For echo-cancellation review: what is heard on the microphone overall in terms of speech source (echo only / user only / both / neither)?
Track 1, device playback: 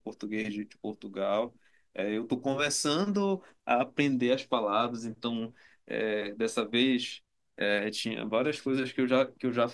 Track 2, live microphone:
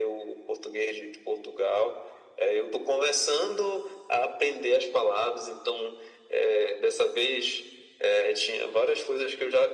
echo only